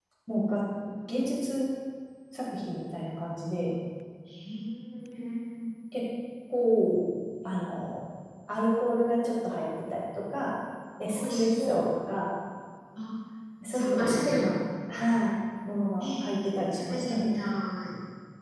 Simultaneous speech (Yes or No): Yes